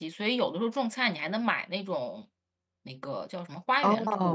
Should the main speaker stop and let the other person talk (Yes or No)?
No